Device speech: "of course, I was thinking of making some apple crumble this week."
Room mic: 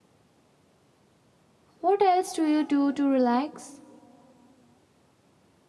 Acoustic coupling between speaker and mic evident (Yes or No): No